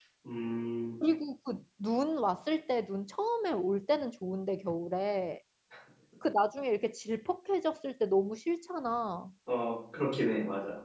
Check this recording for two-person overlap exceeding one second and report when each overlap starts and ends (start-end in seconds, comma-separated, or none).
none